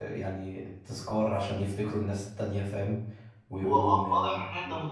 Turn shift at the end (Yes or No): Yes